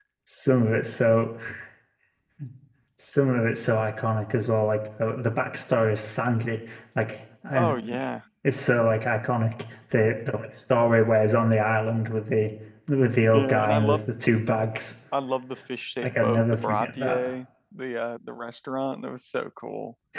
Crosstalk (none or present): present